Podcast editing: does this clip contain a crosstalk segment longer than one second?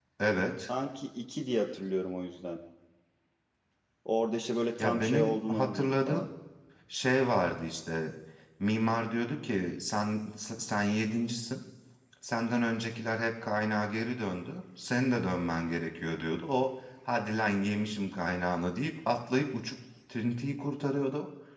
Yes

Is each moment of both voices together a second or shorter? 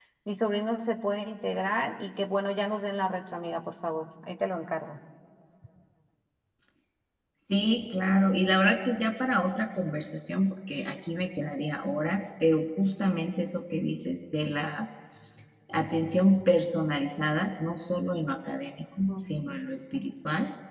Yes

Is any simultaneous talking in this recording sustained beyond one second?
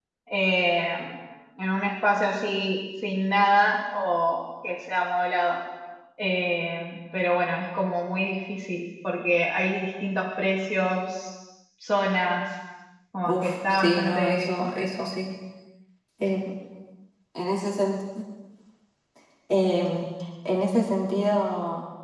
Yes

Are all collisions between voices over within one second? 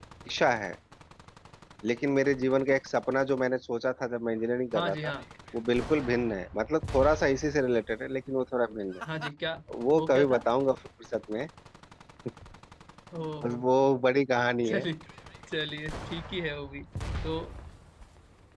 Yes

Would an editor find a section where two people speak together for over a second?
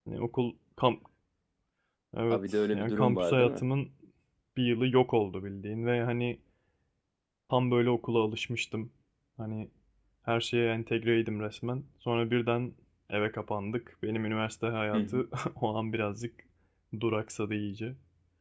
Yes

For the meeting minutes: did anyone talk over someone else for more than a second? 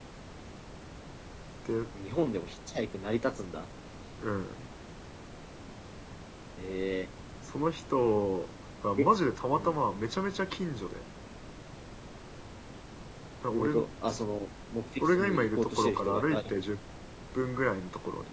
Yes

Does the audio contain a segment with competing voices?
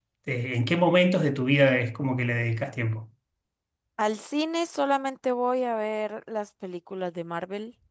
No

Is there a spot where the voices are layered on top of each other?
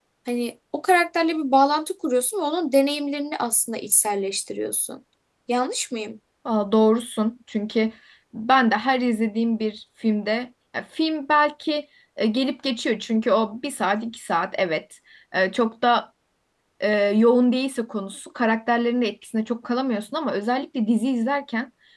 No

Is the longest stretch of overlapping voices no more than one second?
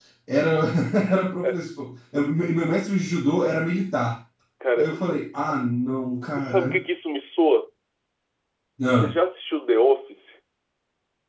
Yes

